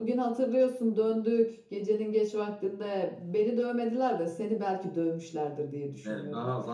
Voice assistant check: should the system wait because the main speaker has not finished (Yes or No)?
No